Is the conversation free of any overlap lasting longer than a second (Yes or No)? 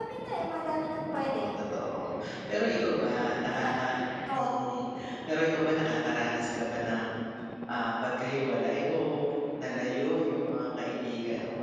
Yes